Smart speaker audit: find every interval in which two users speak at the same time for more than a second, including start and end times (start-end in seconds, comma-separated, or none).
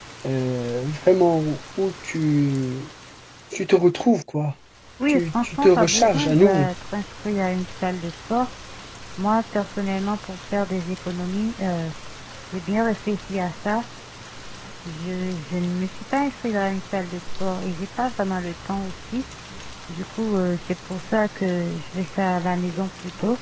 5.1-6.7